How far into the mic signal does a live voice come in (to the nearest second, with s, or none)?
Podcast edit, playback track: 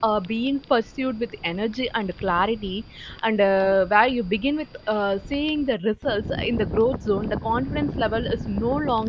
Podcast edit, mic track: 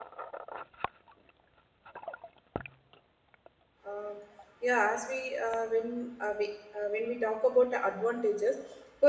4 s